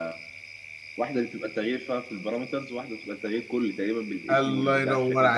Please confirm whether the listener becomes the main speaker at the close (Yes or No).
Yes